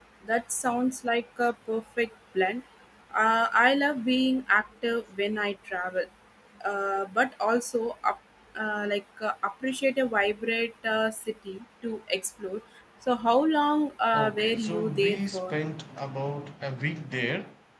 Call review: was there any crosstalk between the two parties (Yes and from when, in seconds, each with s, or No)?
Yes, from 14.1 s